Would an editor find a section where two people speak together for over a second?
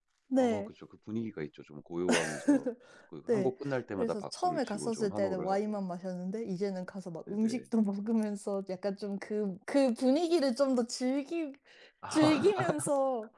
Yes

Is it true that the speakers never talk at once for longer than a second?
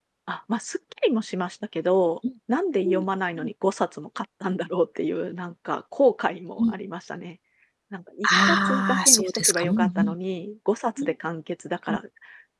No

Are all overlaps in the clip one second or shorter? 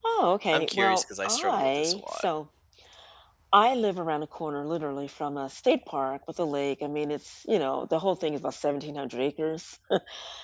No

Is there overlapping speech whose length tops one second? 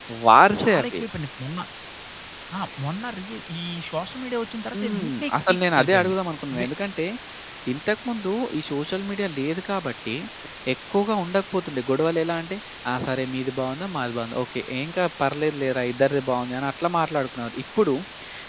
Yes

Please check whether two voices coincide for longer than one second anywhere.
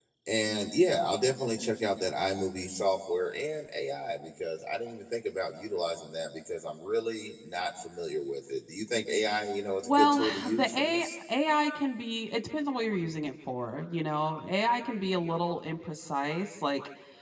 Yes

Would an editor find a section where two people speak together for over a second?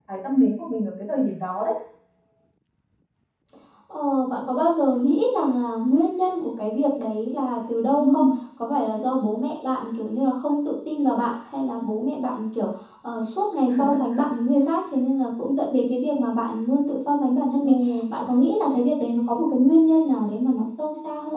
No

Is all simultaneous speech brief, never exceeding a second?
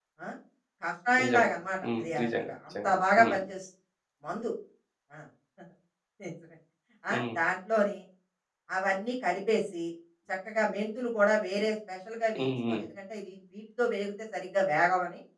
No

